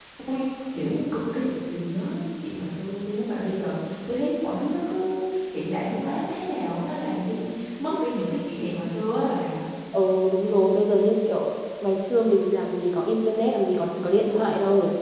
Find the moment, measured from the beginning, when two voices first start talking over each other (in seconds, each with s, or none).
none